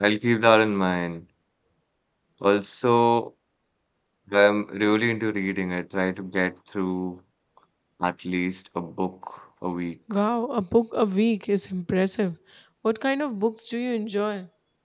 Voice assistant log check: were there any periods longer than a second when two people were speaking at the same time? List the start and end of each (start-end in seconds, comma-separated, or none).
none